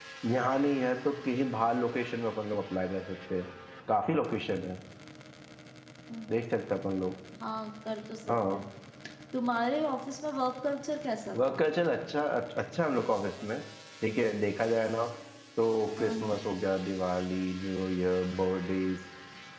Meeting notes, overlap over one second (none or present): none